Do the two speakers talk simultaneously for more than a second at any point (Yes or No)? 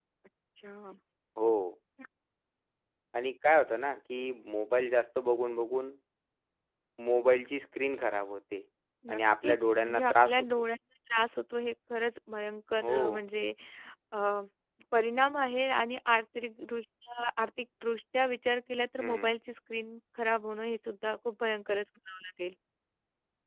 Yes